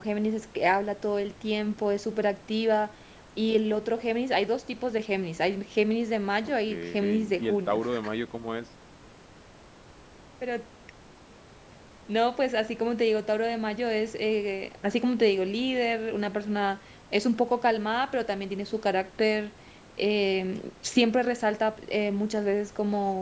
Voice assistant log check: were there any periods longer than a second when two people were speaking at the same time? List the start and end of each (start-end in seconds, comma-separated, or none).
6.4-7.8